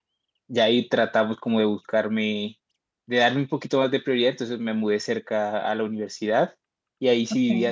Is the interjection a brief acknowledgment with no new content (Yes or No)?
Yes